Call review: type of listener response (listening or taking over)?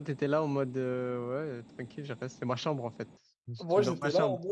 taking over